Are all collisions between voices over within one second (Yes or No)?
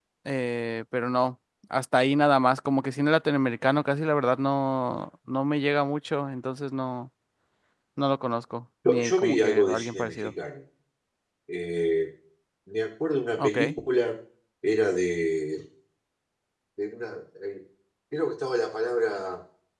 No